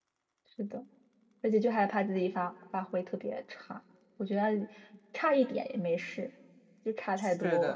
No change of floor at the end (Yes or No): No